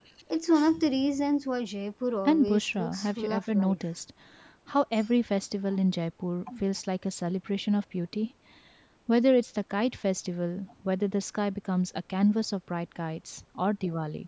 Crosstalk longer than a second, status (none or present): present